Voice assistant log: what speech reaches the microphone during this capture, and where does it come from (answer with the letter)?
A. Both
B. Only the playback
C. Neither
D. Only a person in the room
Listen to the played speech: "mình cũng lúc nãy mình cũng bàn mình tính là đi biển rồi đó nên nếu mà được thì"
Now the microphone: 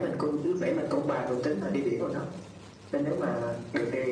B